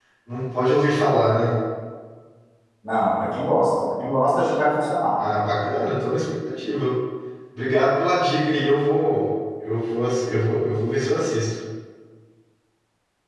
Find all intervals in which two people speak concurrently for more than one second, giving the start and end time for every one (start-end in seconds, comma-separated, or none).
none